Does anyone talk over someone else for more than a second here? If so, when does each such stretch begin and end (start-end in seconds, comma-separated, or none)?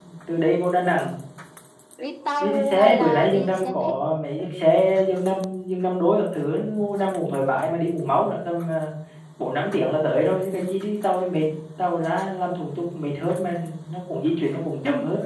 2.4-4.0